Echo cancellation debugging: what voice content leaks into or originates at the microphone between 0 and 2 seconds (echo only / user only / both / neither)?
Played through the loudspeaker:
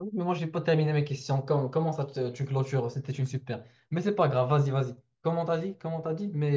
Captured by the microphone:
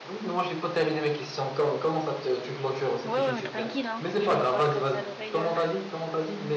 echo only